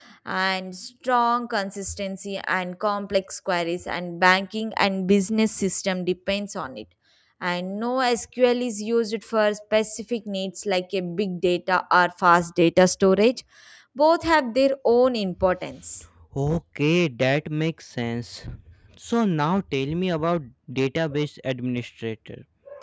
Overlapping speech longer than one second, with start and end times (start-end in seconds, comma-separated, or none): none